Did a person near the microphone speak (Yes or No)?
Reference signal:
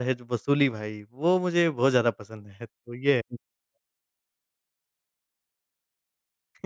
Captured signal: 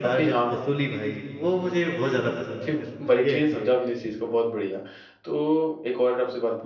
Yes